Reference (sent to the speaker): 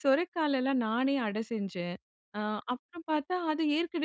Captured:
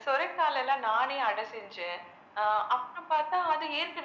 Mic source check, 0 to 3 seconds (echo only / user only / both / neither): echo only